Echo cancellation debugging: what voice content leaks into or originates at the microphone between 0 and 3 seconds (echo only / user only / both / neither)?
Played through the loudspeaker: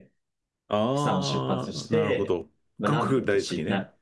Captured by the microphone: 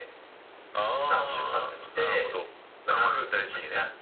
echo only